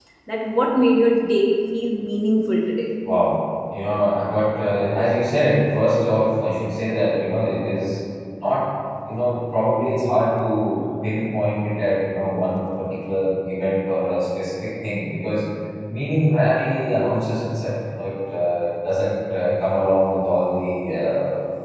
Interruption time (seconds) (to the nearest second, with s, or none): none